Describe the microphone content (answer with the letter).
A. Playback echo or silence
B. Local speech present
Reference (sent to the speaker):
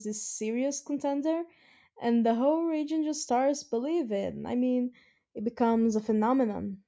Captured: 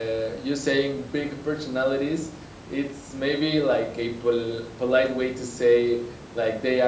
B